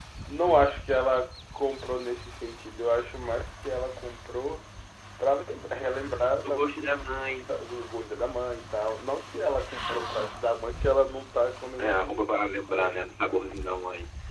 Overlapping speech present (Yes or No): Yes